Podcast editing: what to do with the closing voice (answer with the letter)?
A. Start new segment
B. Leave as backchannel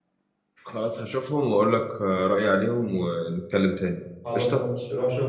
A